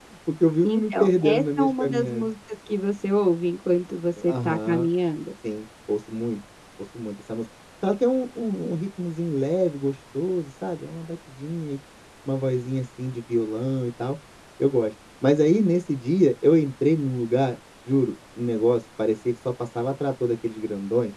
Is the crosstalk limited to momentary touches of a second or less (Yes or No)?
No